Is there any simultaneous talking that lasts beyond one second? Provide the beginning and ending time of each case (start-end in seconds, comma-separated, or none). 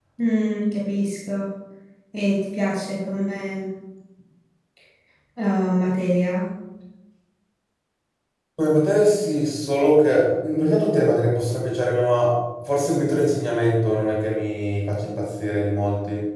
none